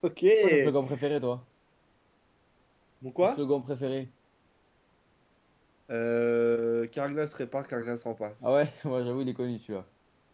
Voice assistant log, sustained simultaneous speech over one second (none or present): none